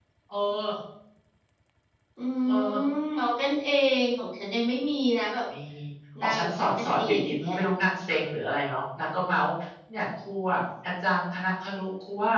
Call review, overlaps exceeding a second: present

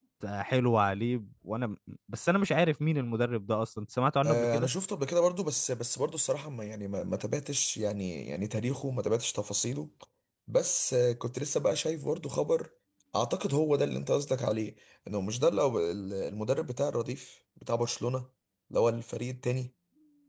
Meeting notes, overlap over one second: none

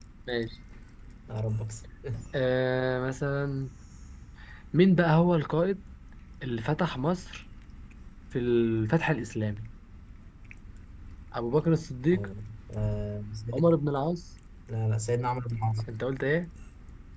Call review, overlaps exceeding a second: none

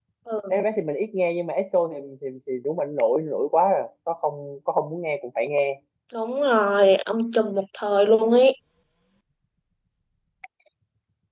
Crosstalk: none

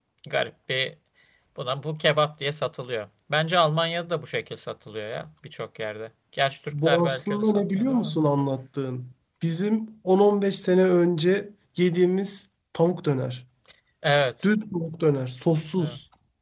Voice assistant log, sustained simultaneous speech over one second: present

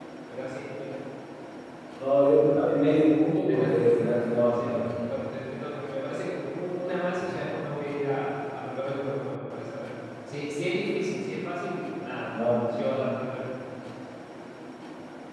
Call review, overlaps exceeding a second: present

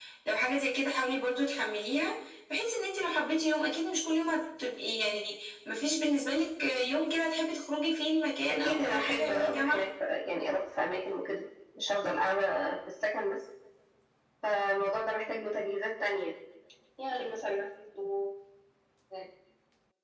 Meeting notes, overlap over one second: present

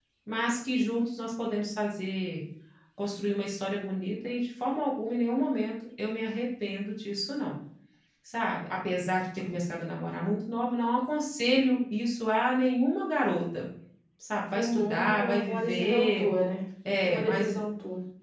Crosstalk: present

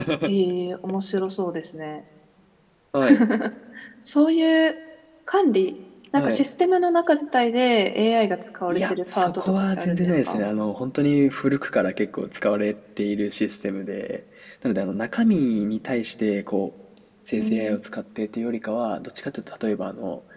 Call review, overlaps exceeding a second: present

